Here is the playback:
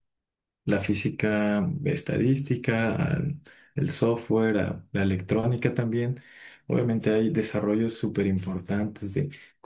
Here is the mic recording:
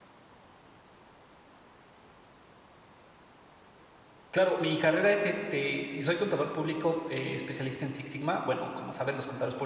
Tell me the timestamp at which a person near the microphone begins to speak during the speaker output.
4 s

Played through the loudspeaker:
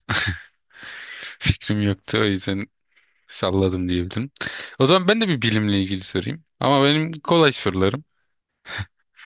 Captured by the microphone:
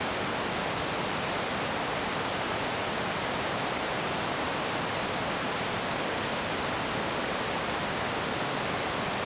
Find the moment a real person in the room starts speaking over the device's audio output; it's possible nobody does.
none

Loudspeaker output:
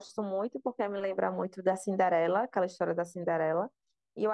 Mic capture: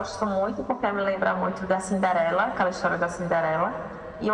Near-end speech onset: none

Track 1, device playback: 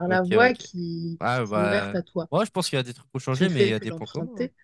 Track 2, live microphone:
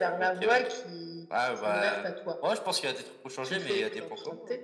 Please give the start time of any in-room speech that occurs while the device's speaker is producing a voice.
none

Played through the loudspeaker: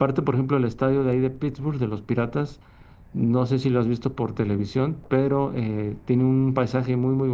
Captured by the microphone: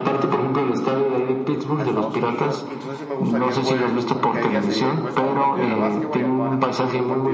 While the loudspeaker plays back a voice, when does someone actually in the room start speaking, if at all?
2 s

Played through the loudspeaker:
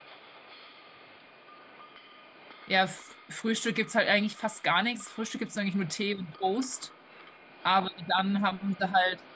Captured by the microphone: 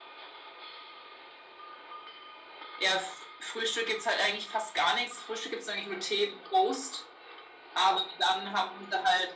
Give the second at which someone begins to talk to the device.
none

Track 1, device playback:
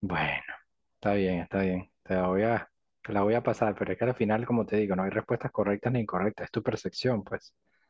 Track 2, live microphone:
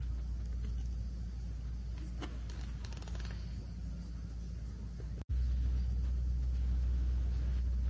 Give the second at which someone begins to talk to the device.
none

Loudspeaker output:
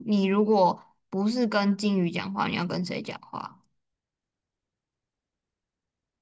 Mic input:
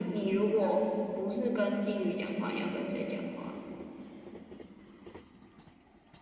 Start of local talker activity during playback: none

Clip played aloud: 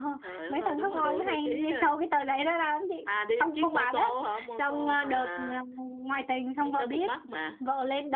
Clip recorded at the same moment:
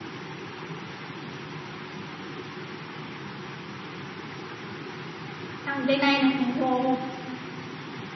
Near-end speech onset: 6 s

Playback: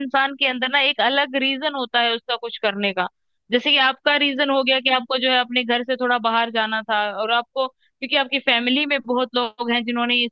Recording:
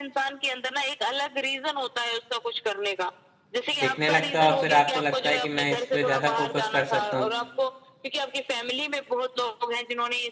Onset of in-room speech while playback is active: 4 s

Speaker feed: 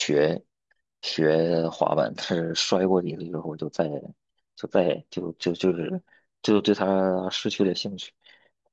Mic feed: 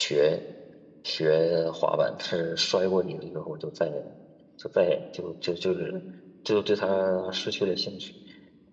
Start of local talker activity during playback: none

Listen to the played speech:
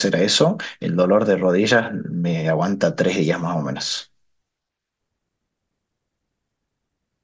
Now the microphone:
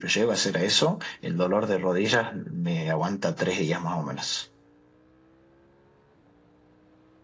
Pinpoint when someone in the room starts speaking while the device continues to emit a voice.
none

